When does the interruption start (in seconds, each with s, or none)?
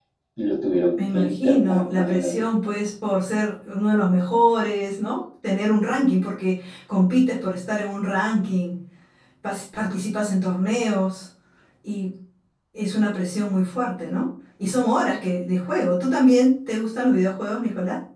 1.1 s